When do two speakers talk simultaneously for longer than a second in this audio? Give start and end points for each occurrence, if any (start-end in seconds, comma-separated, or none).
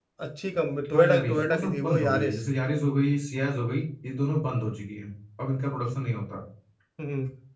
0.9-2.4